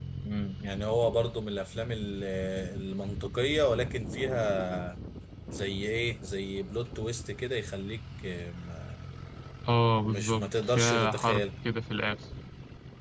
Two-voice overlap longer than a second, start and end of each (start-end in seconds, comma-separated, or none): 10.1-11.4